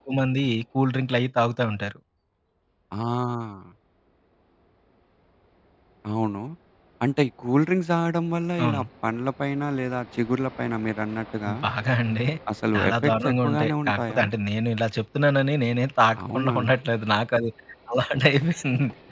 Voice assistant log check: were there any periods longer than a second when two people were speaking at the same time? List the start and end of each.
12.8-14.2

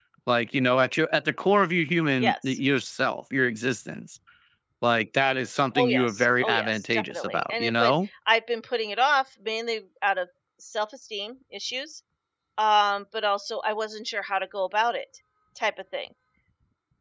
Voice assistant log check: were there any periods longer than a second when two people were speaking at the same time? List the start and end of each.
5.8-7.9

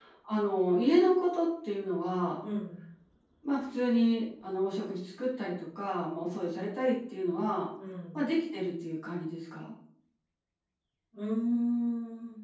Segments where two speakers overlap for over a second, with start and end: none

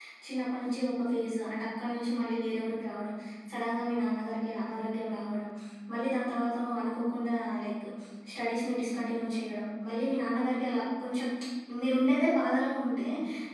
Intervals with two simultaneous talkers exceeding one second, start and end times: none

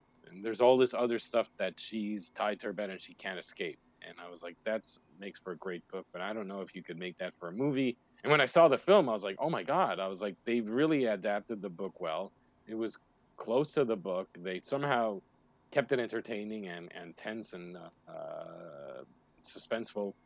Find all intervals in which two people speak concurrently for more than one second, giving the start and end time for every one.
none

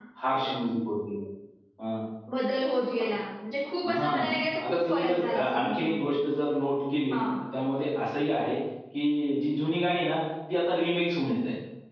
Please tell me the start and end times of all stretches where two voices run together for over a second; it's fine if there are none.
4.6-6.1

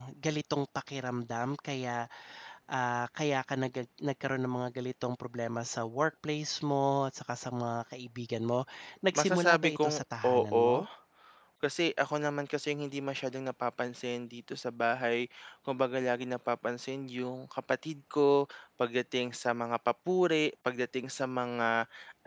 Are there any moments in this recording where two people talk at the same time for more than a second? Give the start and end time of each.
9.1-10.7

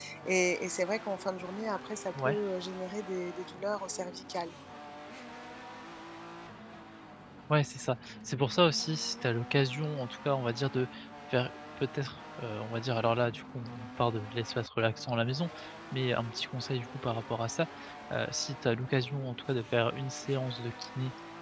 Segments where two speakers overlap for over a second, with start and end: none

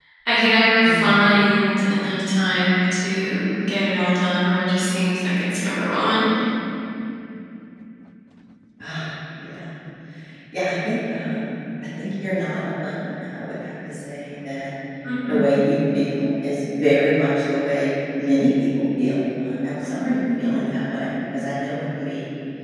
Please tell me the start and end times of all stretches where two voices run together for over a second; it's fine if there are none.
none

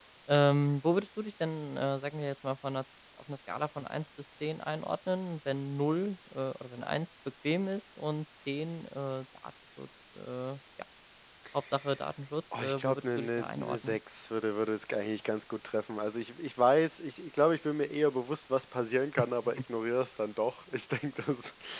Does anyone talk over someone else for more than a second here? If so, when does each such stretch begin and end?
12.6-14.0

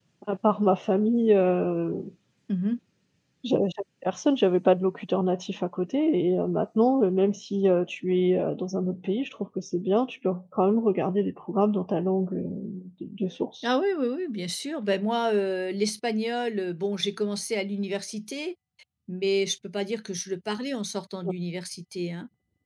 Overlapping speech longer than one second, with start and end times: none

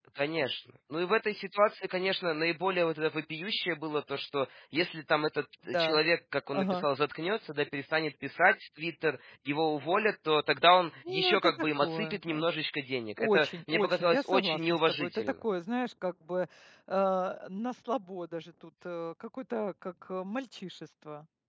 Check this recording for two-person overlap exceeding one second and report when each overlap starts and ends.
11.1-12.4, 13.2-15.3

